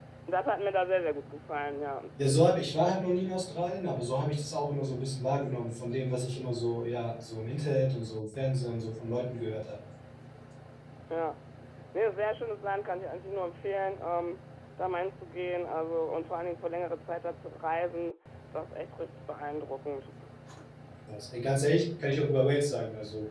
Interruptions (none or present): none